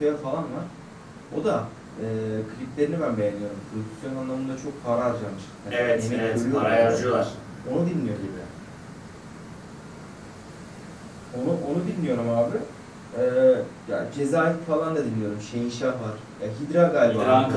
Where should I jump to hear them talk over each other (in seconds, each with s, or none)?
5.7 s